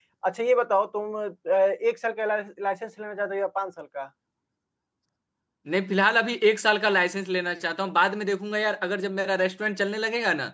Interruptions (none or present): none